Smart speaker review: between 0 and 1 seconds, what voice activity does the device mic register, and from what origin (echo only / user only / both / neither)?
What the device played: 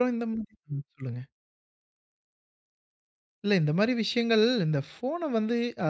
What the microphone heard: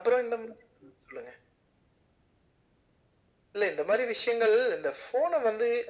echo only